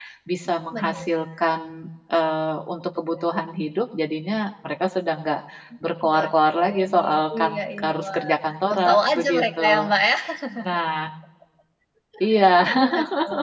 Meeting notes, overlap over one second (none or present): present